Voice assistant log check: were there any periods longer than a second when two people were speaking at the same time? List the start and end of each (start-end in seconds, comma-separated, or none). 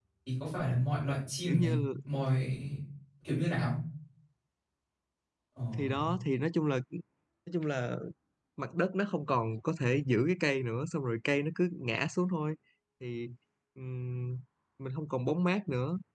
none